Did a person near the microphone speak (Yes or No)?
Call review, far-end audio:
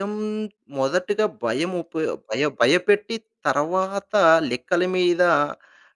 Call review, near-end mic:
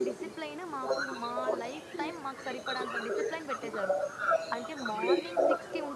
Yes